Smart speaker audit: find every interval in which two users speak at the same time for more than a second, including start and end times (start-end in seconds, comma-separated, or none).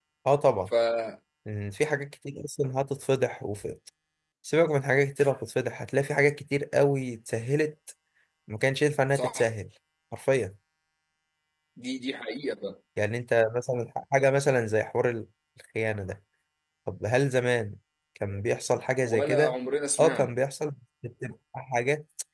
none